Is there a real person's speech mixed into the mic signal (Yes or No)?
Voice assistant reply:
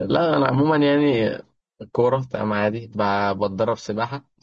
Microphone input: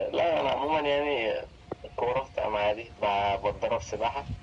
No